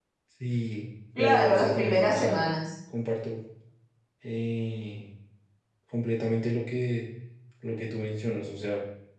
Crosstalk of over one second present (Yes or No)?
Yes